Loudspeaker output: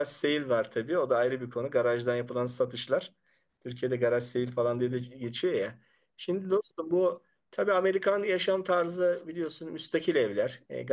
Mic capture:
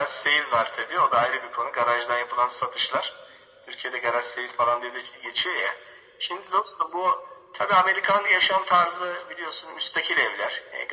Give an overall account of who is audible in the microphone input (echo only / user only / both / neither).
echo only